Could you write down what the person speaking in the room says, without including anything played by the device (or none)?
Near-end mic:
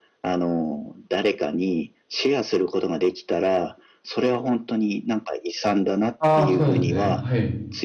ああ、そうなんですね。はい。